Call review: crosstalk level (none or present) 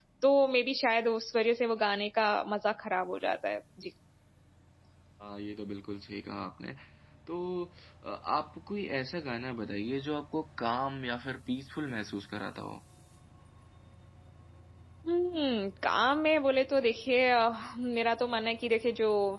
none